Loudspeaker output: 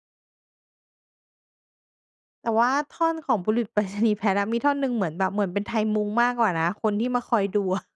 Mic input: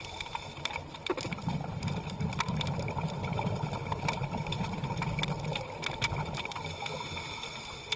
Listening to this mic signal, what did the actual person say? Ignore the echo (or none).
none